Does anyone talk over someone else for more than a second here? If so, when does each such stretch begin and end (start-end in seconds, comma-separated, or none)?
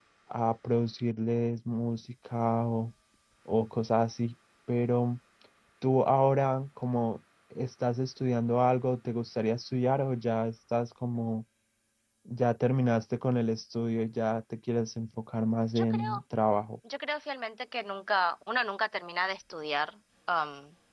none